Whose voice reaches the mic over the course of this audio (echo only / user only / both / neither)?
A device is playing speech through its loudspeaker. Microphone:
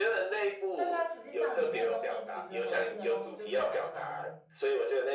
both